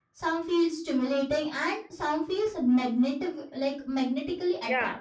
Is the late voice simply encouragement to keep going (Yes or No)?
No